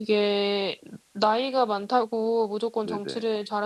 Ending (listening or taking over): listening